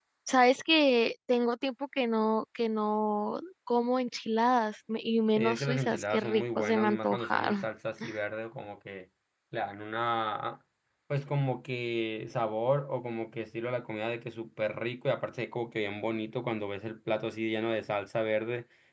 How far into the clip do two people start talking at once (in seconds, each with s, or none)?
5.4 s